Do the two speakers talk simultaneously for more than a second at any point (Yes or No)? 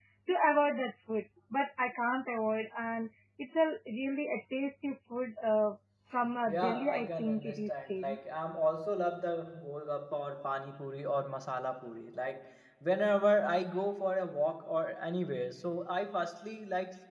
Yes